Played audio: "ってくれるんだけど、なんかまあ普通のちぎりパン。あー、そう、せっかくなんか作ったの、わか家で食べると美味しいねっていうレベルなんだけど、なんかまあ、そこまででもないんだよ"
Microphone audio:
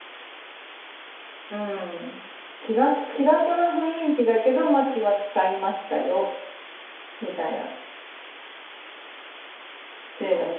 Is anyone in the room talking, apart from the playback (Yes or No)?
Yes